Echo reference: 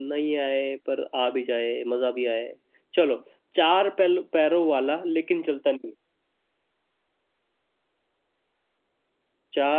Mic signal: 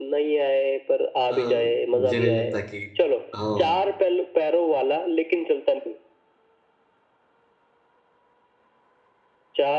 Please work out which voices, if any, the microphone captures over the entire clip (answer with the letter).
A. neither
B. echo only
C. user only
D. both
D